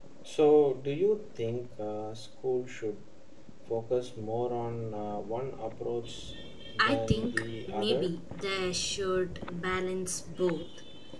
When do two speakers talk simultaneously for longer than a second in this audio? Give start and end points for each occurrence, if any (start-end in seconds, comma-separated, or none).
6.8-8.1